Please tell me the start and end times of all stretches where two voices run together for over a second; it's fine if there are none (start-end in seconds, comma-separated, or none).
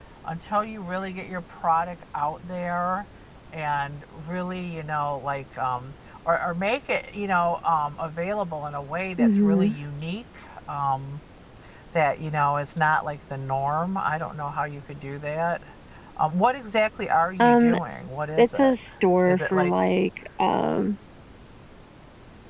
none